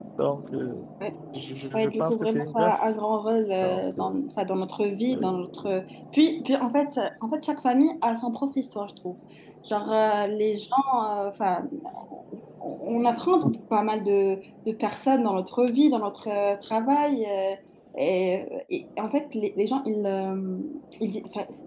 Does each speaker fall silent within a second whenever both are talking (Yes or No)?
No